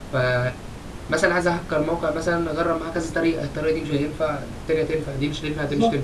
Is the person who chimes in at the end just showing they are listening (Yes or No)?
Yes